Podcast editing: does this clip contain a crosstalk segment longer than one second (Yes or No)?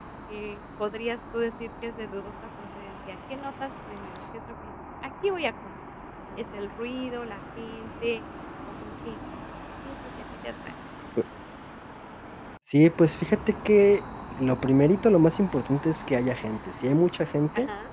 No